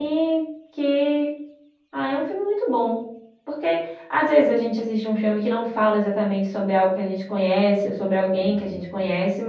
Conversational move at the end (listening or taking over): listening